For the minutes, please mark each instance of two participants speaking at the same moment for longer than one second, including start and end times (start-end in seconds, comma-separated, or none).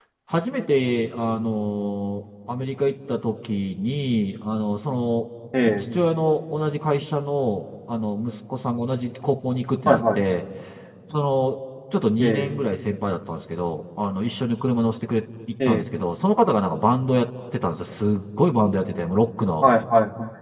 none